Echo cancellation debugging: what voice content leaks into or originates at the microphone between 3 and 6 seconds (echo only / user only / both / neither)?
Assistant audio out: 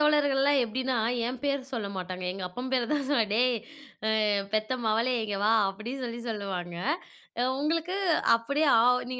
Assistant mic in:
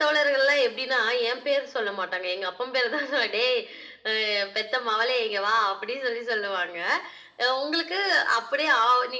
echo only